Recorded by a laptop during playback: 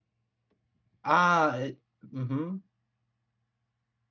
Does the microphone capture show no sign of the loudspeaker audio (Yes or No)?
Yes